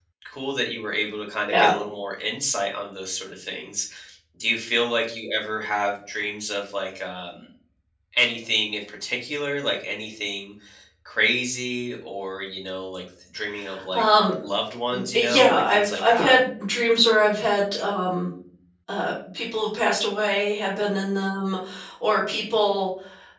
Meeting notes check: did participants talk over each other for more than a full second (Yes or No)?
Yes